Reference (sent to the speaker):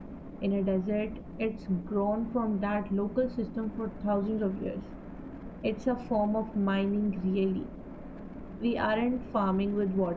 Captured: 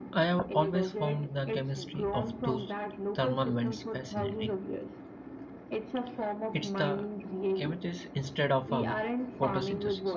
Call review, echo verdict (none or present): present